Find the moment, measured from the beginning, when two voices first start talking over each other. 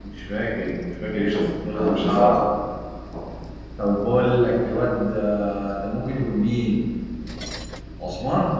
1 s

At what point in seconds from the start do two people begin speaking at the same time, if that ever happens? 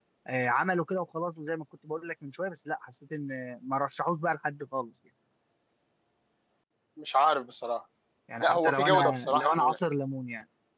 8 s

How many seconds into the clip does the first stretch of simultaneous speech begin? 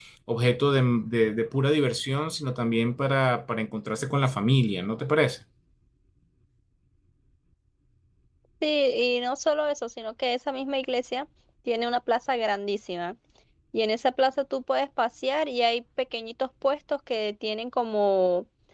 none

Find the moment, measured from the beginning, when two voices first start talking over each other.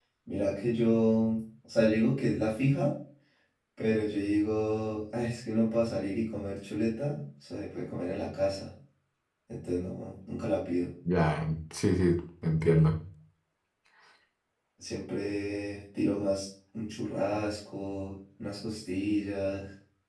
none

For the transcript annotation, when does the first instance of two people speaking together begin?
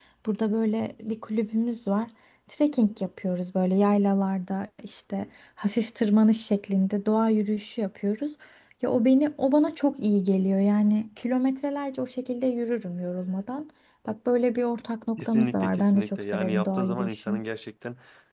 15 s

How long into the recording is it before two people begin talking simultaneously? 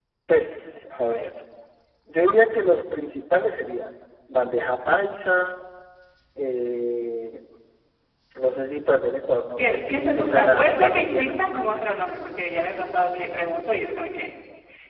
10 s

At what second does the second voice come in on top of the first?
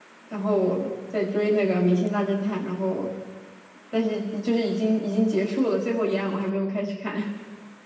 none

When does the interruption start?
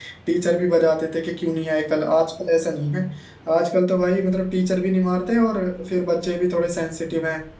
none

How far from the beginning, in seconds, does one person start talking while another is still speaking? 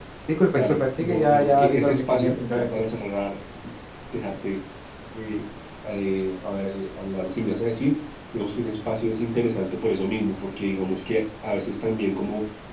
1 s

